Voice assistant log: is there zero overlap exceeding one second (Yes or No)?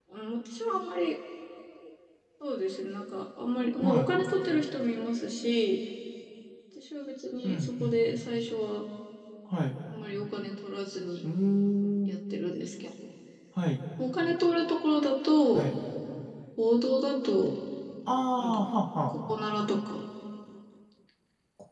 Yes